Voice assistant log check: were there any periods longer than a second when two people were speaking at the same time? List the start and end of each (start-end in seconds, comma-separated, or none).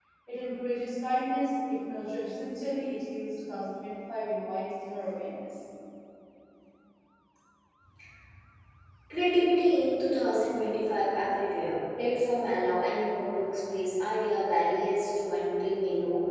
none